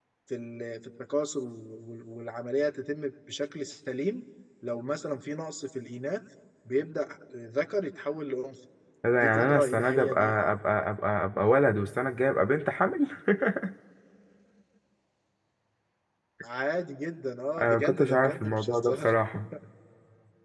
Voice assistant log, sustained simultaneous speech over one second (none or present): present